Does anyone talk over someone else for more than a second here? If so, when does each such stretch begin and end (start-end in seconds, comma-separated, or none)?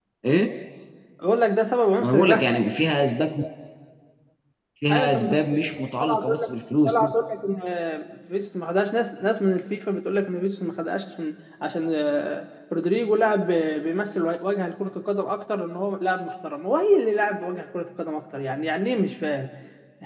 4.9-6.5